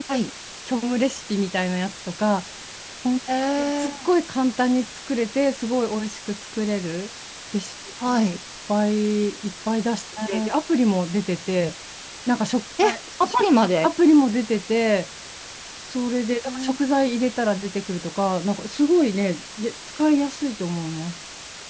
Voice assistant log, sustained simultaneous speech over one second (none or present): none